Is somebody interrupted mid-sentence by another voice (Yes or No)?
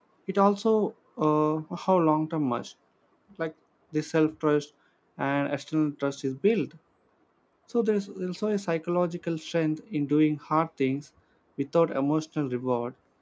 No